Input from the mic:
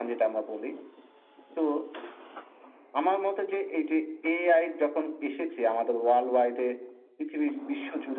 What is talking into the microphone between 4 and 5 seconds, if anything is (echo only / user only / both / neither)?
echo only